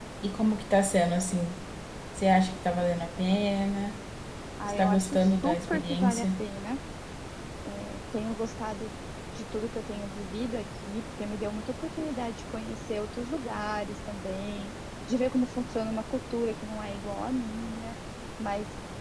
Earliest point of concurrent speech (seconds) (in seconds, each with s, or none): 4.7 s